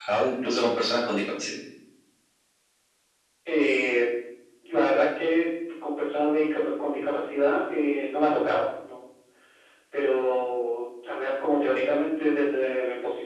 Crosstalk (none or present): none